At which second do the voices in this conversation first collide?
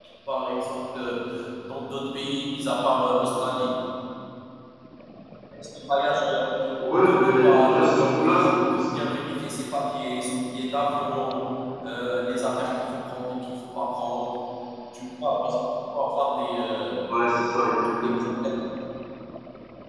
7 s

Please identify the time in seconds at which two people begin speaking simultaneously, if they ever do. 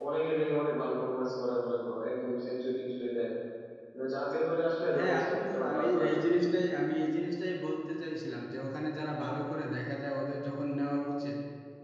5 s

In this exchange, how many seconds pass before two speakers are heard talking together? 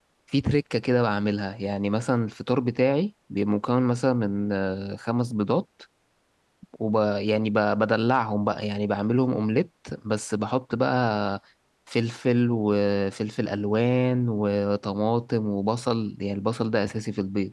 none

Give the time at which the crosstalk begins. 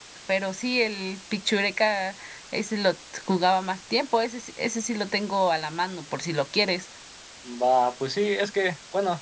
none

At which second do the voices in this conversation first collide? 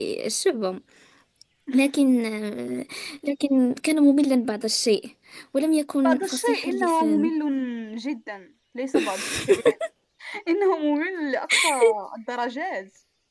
6 s

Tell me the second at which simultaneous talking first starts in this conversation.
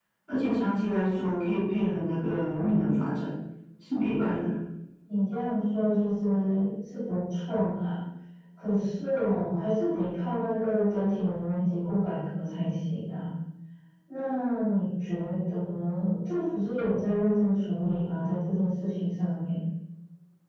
none

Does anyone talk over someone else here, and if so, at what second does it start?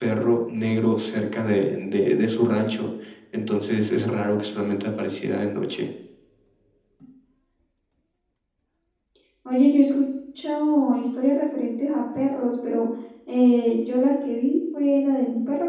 none

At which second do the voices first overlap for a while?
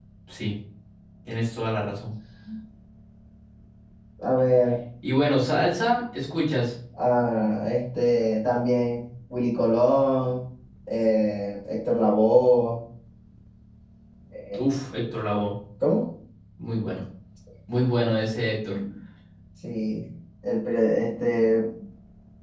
none

